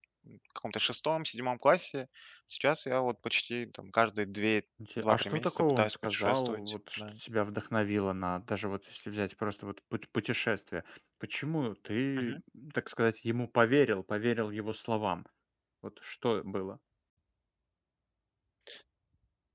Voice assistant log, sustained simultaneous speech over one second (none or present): present